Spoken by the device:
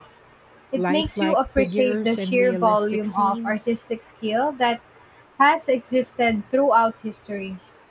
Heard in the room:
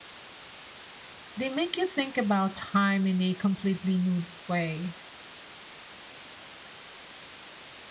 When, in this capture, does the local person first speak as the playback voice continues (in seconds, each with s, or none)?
1.4 s